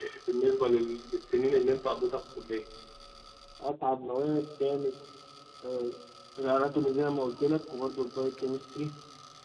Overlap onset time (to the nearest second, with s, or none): none